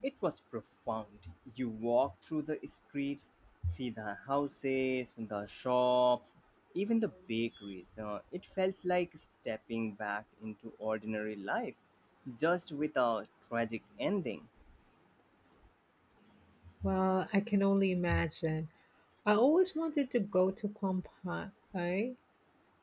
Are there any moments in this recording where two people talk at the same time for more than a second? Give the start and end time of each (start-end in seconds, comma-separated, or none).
none